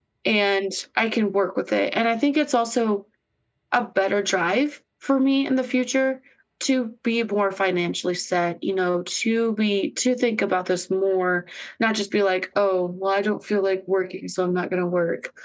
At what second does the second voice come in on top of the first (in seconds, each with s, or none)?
none